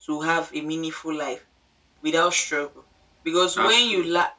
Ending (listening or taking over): listening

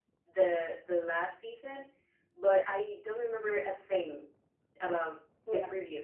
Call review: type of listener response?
listening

